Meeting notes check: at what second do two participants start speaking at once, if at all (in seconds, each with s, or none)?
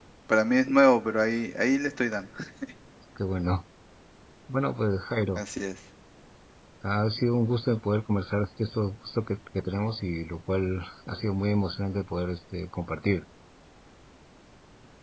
none